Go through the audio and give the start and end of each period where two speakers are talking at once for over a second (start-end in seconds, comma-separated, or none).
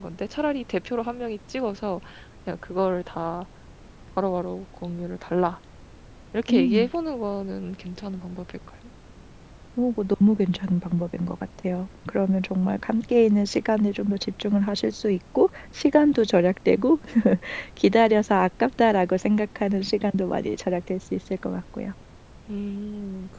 none